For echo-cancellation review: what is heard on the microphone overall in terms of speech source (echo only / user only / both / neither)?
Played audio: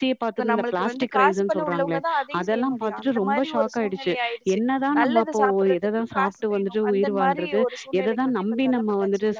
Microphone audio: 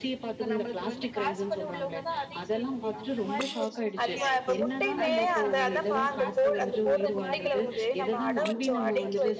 both